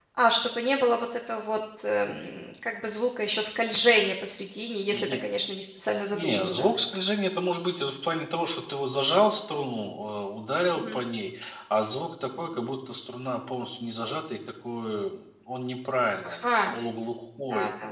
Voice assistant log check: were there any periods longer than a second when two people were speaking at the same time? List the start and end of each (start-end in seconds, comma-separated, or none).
none